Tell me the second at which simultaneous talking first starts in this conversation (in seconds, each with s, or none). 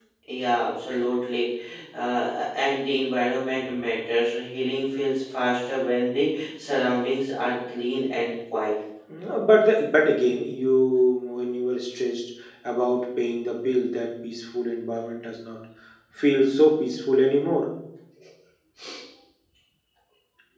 none